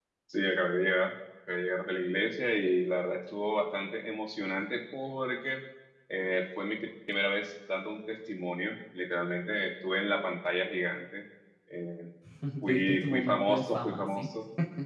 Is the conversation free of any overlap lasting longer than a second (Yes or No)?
No